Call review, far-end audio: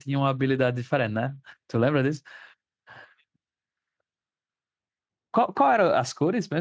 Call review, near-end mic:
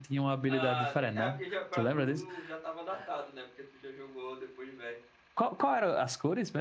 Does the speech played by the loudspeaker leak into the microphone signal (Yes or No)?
Yes